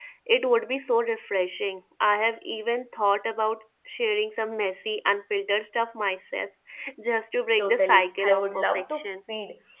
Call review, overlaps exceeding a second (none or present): present